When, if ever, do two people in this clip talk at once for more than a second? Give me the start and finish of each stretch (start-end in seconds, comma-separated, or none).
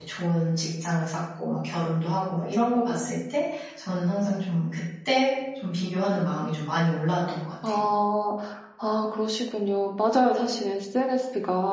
none